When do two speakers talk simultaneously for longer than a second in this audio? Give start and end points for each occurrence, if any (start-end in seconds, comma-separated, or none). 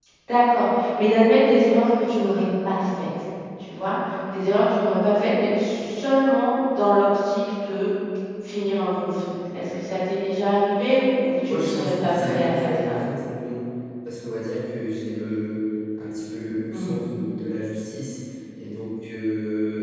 11.5-12.9